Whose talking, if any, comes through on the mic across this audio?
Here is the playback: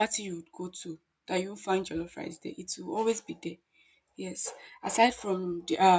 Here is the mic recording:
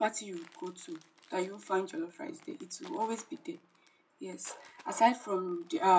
echo only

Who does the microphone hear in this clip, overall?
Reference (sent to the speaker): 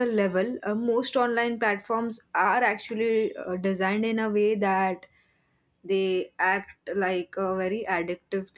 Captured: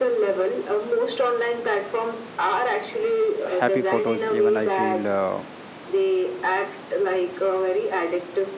both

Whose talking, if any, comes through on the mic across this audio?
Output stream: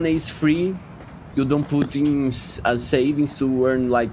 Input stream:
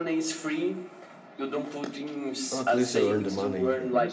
both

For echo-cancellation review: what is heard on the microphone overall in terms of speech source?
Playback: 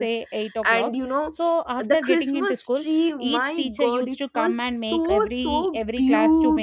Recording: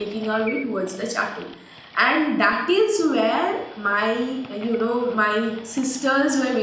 user only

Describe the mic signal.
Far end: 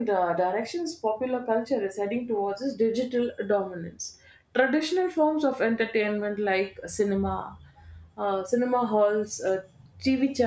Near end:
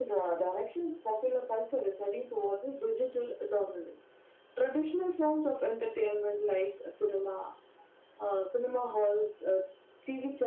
echo only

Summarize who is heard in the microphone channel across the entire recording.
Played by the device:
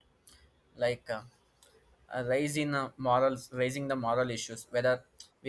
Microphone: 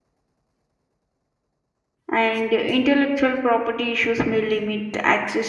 user only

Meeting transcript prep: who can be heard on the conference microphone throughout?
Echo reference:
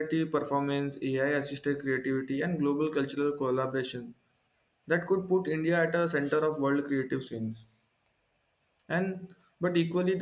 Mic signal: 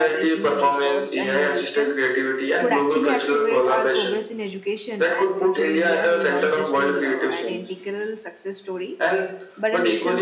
both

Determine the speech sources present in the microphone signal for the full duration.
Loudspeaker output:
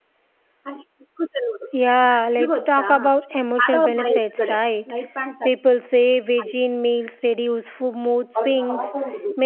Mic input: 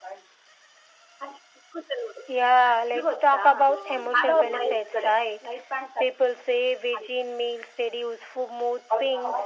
both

